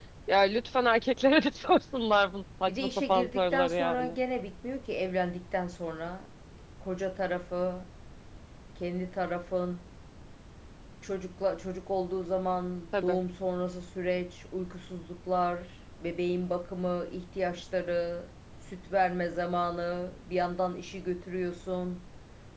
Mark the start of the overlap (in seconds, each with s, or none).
2.7 s